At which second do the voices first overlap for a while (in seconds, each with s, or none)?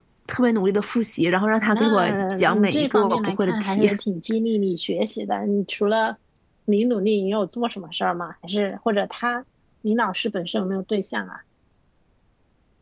1.7 s